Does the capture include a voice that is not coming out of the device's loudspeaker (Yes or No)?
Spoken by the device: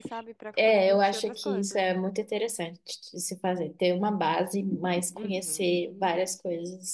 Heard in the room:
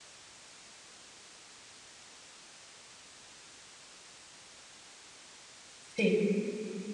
Yes